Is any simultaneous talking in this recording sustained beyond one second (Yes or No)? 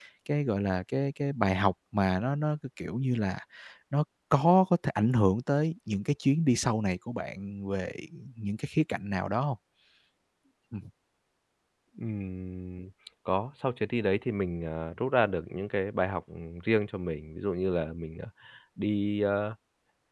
No